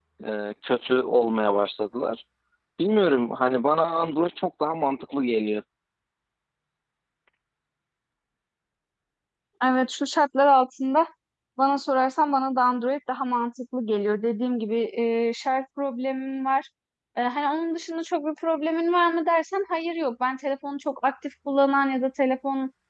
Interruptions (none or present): none